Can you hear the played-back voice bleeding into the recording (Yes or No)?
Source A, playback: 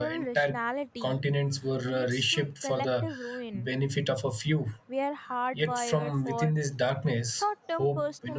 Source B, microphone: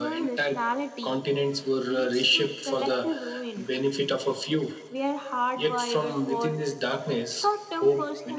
Yes